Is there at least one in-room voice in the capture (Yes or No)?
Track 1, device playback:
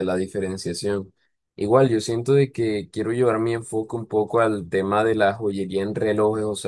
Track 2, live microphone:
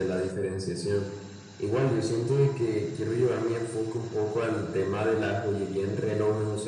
No